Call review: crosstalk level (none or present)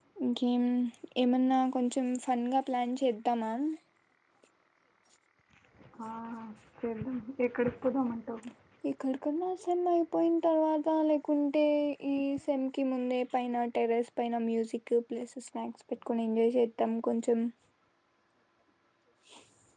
none